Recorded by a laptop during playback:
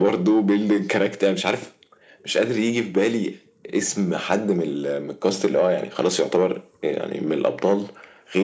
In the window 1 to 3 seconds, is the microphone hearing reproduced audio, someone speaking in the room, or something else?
echo only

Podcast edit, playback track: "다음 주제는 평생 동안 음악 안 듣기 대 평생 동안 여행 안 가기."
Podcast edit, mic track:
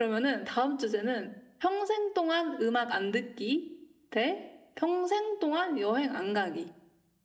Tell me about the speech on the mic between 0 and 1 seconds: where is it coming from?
echo only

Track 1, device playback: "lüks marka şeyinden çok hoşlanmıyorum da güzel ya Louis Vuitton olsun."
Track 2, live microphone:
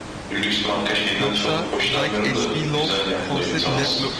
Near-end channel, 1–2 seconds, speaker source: both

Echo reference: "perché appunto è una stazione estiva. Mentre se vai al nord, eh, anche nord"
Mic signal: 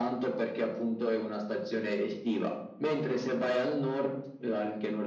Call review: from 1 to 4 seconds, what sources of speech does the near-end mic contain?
echo only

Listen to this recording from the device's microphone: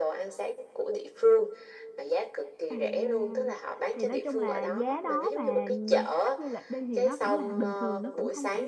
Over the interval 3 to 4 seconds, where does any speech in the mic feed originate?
both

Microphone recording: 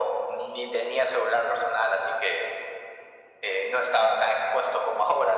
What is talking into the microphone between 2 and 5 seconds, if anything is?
echo only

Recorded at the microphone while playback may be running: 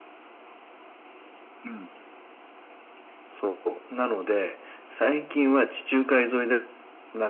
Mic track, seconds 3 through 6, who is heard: echo only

